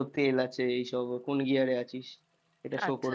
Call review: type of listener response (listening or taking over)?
taking over